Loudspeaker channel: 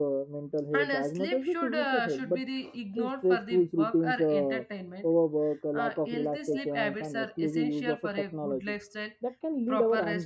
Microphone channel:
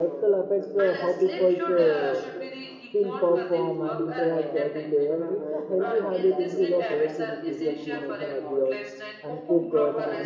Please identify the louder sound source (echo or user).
user